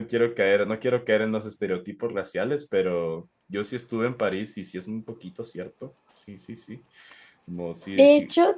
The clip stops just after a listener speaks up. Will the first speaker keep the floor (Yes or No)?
No